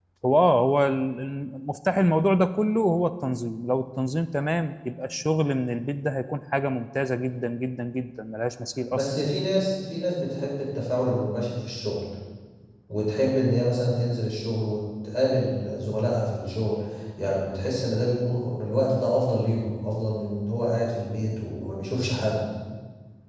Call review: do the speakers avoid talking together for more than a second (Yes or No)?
Yes